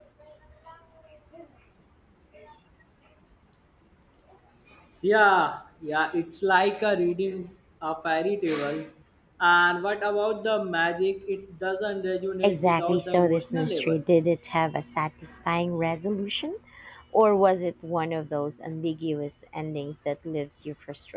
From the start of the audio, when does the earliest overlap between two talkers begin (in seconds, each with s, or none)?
12.4 s